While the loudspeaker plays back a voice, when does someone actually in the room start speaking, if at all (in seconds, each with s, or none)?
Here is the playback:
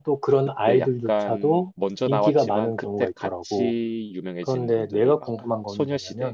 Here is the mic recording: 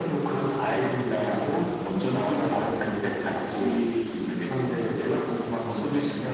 none